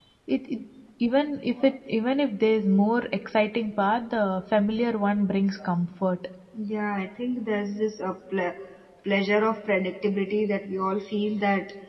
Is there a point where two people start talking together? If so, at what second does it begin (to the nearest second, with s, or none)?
none